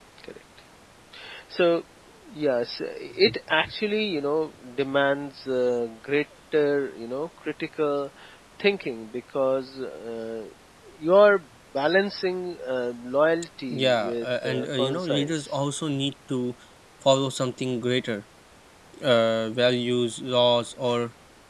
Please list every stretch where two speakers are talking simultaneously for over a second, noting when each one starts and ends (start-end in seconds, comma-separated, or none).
13.7-15.5